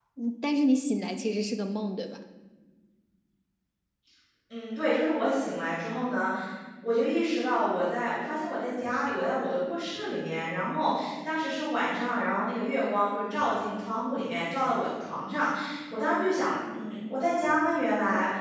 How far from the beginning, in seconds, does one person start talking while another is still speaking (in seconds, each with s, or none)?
none